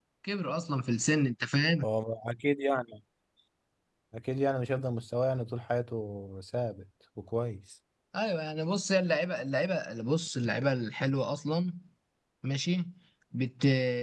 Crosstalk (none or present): none